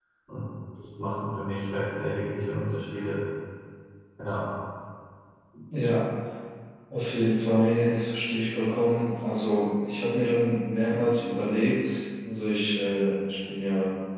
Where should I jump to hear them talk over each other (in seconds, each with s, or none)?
none